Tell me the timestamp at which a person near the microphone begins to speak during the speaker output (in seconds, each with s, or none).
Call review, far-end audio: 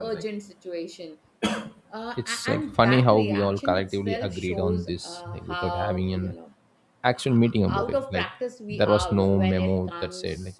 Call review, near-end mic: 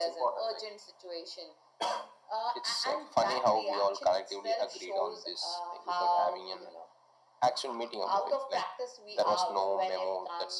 none